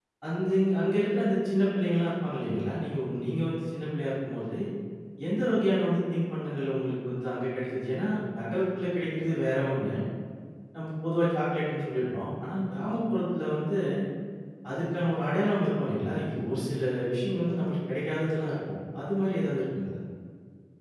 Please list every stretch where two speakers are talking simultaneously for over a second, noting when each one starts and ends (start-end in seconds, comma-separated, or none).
none